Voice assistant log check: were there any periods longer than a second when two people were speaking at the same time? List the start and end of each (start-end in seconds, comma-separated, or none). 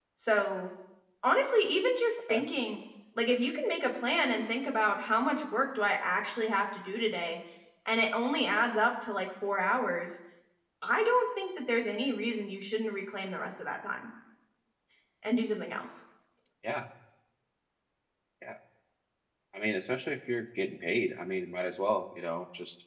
none